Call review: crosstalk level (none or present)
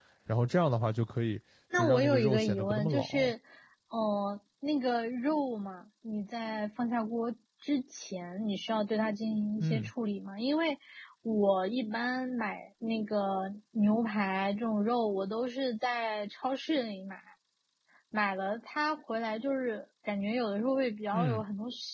present